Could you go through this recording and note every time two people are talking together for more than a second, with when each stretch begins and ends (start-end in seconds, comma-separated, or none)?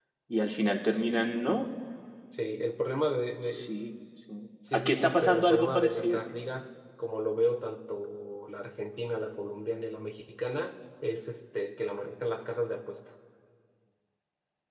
4.7-6.3